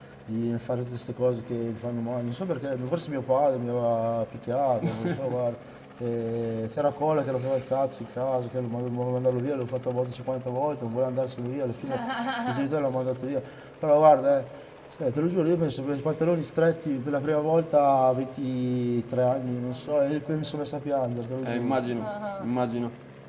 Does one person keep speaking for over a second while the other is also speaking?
No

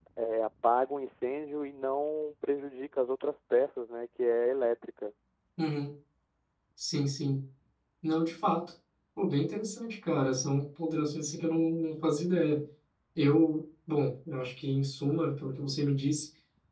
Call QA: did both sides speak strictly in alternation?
Yes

